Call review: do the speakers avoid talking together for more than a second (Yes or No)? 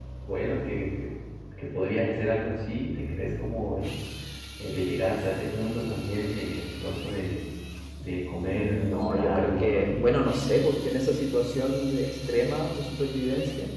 No